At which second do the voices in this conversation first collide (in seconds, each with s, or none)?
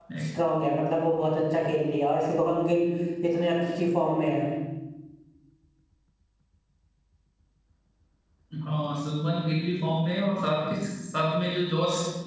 none